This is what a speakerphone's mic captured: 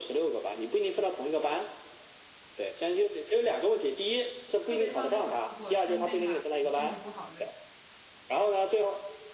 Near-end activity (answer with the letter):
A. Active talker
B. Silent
A